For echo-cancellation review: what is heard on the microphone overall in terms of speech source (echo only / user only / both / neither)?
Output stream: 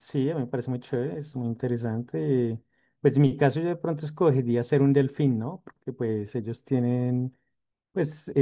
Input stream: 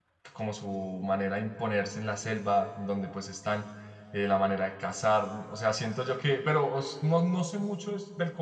user only